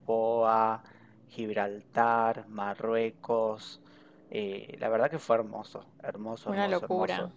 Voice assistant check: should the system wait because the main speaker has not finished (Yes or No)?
Yes